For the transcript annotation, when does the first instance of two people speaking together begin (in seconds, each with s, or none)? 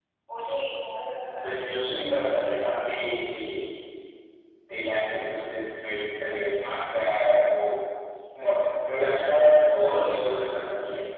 1.3 s